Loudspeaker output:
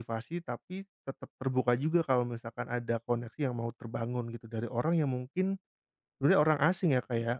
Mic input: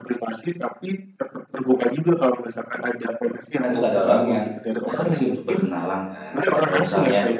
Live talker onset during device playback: 4 s

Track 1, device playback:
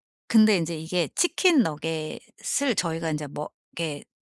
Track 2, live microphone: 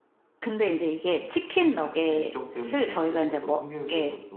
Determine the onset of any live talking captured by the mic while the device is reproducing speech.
2 s

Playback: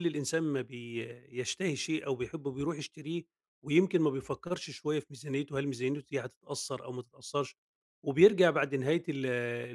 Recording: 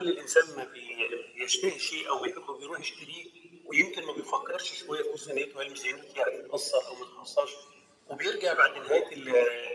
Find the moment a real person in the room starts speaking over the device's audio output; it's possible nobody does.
none

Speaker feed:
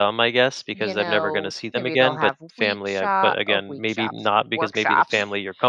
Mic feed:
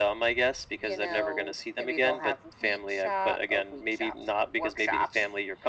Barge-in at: none

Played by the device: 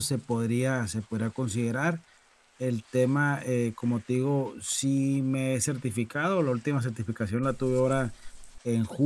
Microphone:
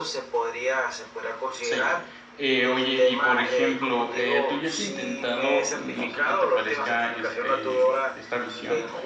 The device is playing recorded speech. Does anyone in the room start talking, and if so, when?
2 s

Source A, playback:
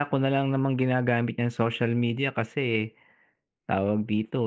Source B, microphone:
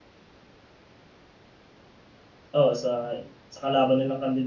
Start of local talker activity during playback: 3 s

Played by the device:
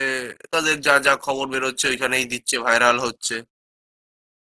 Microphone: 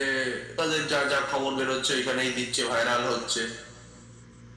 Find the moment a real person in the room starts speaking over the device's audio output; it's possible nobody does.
none

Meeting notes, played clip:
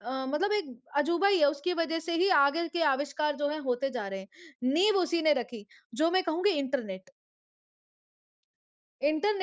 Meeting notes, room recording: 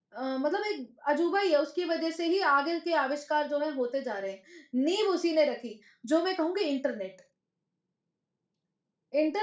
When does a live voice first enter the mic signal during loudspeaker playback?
none

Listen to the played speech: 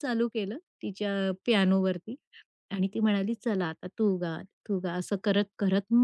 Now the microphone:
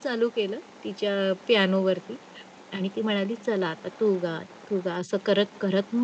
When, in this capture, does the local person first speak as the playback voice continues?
none

